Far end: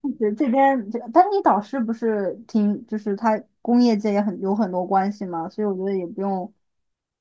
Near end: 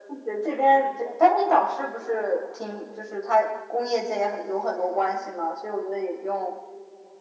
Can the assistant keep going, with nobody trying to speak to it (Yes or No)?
Yes